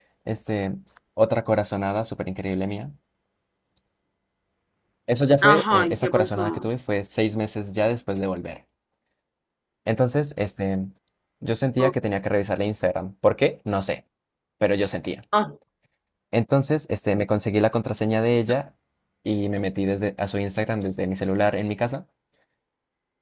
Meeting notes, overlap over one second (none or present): present